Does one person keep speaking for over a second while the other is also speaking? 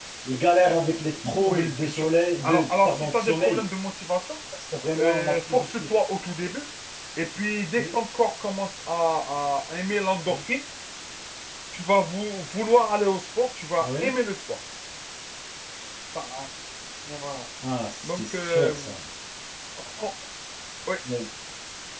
Yes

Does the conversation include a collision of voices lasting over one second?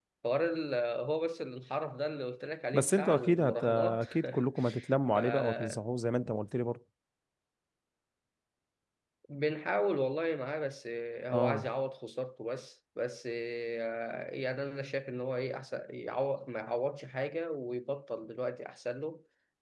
Yes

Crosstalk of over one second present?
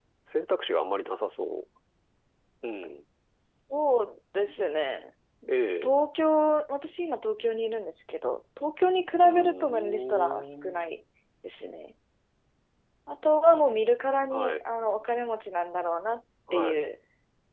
Yes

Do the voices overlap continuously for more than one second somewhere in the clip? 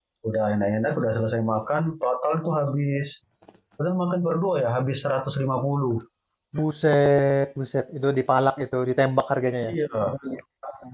No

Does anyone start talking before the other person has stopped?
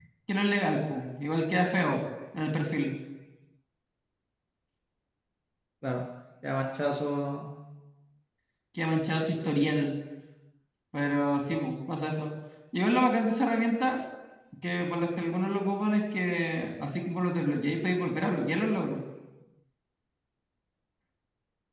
No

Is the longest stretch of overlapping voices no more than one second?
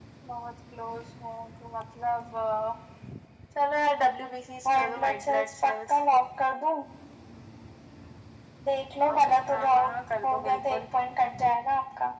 No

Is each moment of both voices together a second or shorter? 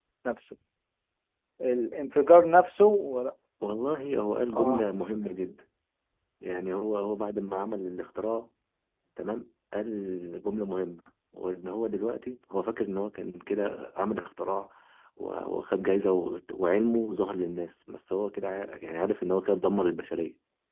Yes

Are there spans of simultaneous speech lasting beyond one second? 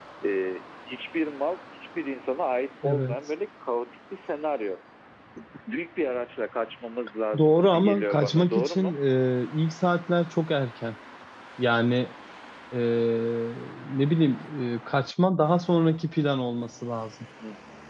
Yes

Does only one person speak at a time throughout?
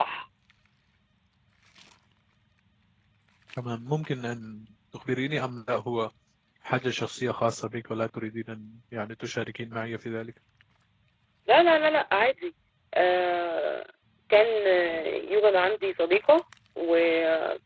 Yes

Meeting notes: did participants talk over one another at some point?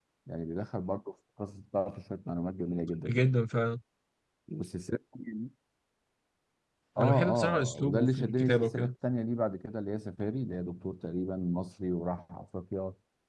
Yes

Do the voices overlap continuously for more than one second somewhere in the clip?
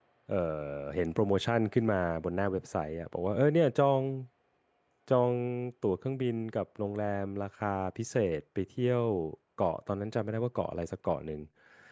No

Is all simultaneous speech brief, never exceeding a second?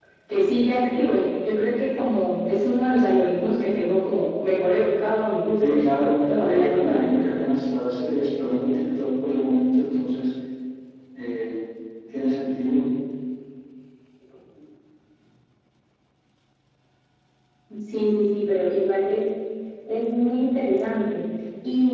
No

